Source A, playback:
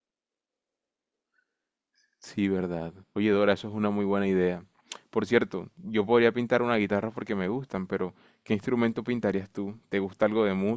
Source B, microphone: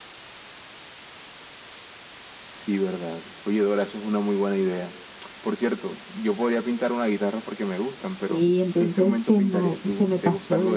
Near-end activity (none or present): present